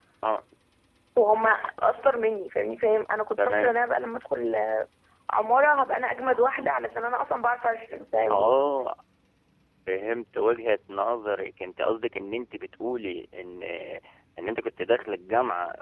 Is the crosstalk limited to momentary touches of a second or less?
Yes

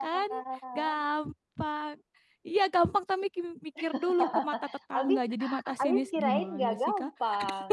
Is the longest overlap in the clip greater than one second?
Yes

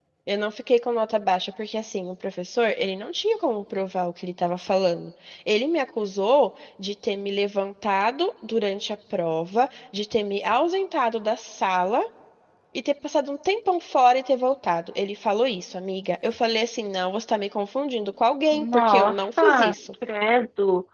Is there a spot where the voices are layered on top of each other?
Yes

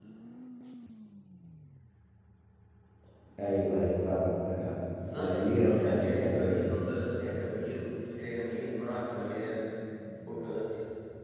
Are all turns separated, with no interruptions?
No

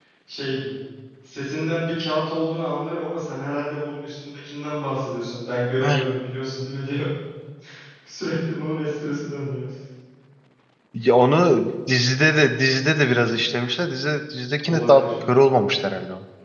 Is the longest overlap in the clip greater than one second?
No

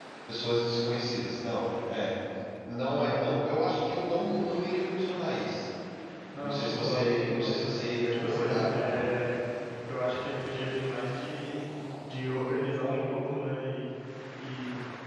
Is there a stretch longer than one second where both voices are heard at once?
Yes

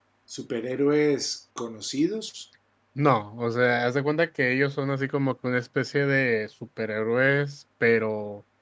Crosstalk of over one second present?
No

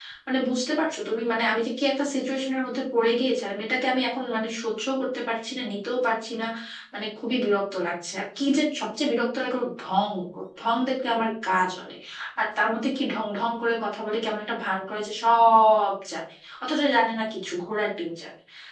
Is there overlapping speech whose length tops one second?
No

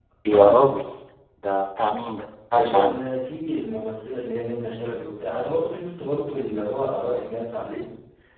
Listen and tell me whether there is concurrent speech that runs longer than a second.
No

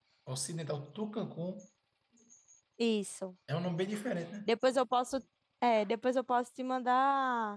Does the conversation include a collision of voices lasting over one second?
No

